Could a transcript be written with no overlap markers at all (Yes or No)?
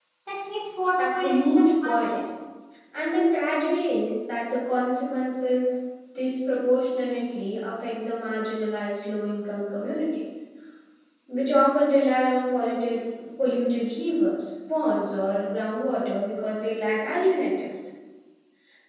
No